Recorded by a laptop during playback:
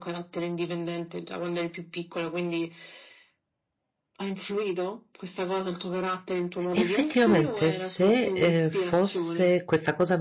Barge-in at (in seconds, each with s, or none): 6.7 s